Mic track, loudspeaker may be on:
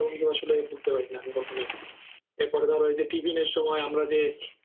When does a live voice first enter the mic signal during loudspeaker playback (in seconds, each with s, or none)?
none